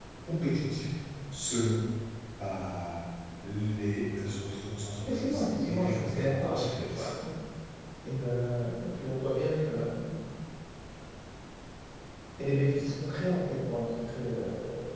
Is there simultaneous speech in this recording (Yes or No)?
Yes